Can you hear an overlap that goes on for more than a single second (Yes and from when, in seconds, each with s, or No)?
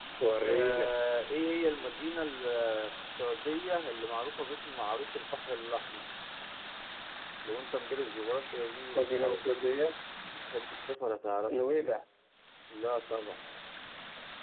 No